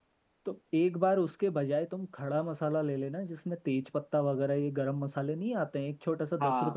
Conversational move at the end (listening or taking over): taking over